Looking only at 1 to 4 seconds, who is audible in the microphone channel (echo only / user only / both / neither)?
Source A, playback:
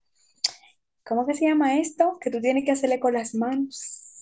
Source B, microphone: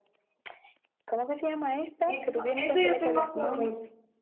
both